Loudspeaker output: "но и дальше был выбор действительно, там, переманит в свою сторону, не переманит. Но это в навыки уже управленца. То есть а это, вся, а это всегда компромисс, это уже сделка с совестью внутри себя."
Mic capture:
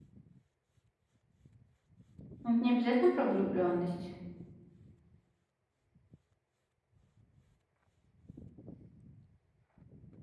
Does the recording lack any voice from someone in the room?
No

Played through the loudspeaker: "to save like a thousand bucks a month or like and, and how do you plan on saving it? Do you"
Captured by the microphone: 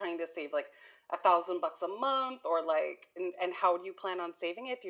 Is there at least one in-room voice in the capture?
No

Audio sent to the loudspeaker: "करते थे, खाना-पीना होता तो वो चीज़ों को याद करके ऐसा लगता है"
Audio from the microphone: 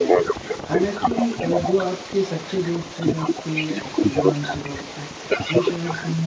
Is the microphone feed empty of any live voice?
No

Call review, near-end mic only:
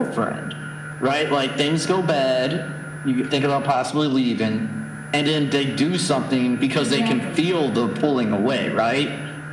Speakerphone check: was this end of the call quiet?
No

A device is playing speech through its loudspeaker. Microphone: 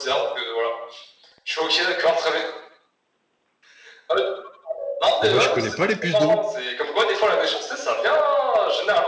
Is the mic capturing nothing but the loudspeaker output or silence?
No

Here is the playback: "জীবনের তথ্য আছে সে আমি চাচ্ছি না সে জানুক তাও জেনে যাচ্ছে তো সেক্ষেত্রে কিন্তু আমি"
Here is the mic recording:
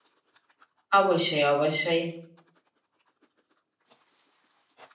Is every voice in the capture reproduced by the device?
No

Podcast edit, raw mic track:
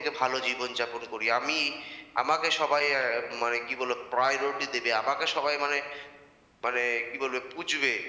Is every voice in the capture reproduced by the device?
Yes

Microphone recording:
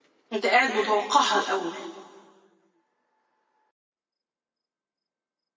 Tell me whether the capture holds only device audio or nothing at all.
No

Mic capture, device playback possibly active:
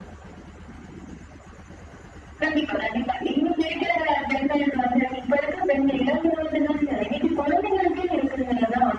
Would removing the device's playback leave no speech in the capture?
Yes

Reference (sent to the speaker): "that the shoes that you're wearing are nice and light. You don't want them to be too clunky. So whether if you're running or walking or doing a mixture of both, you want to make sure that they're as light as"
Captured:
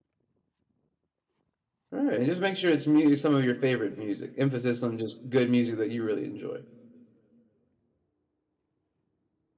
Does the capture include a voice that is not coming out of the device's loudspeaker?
Yes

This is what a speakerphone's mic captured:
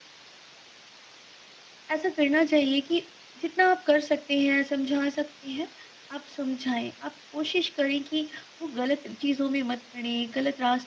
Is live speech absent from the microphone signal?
No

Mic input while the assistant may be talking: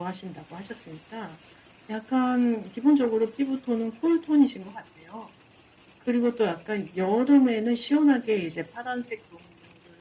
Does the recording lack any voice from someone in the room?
Yes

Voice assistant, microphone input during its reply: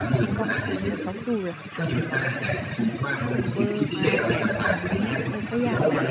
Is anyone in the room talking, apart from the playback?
Yes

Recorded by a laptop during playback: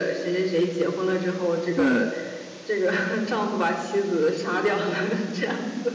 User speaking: Yes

